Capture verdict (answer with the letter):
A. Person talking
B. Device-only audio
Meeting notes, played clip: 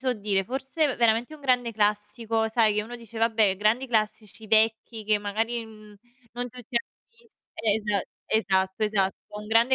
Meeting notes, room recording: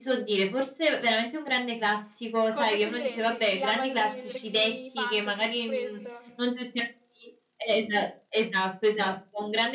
A